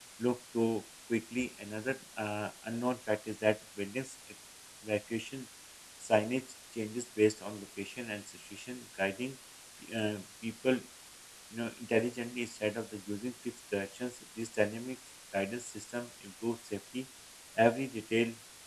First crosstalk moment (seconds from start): none

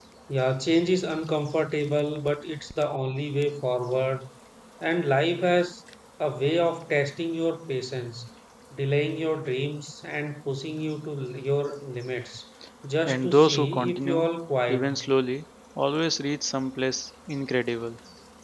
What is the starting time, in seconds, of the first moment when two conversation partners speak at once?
13.1 s

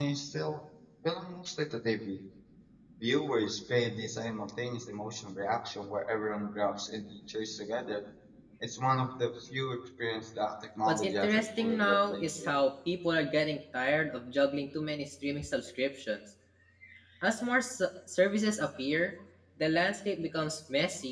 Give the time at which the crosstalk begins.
10.8 s

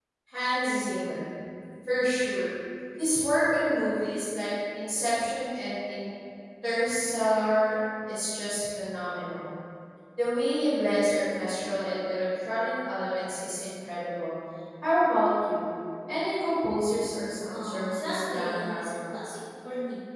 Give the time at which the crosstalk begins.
17.5 s

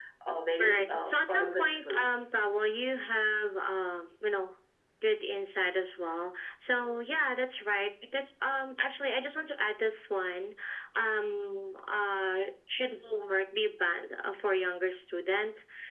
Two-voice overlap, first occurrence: 0.6 s

